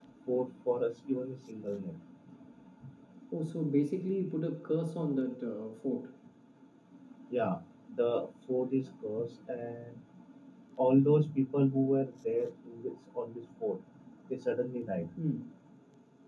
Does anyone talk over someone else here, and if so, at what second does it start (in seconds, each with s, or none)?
none